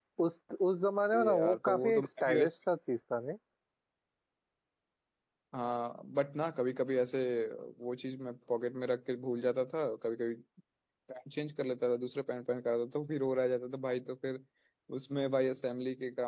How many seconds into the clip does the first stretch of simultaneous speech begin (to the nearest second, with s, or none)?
1 s